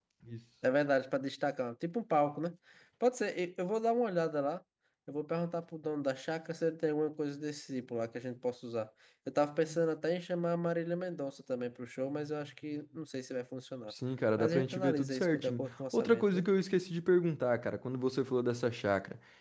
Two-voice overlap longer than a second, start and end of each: 14.4-16.5

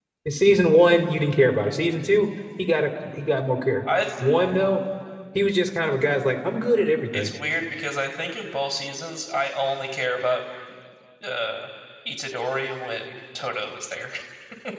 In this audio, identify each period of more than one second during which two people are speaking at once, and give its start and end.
none

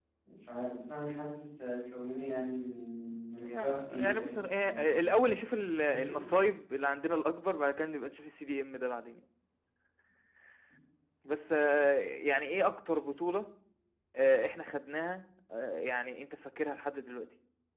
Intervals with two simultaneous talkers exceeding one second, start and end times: 3.4-5.0

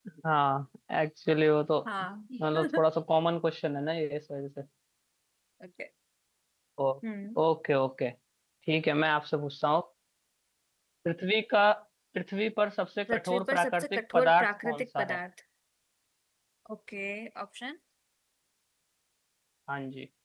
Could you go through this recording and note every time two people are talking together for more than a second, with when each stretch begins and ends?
13.1-15.2

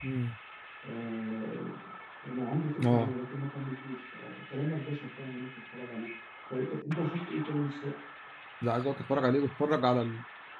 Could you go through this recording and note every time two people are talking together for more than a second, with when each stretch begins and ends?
none

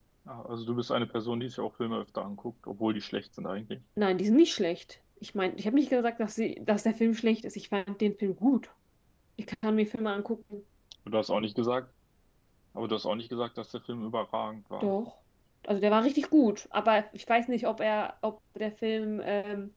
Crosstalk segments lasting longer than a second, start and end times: none

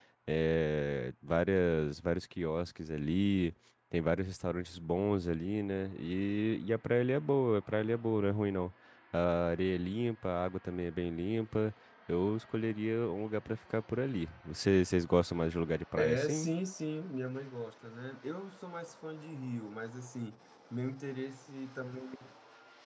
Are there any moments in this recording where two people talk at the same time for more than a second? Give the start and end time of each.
none

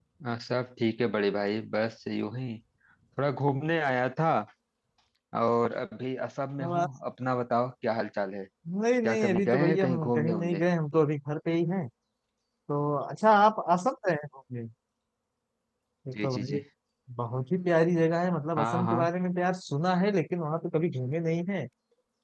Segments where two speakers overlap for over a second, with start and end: 9.0-10.6

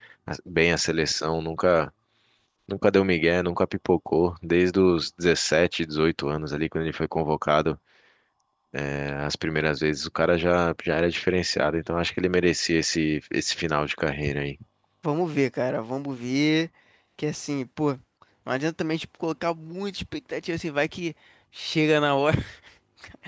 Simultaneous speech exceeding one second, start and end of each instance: none

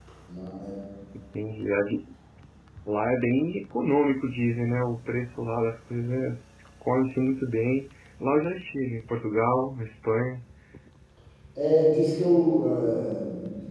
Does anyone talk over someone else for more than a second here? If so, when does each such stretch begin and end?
none

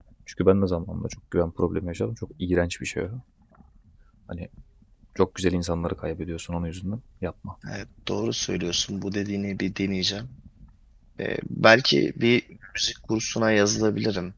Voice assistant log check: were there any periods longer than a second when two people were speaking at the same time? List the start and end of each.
none

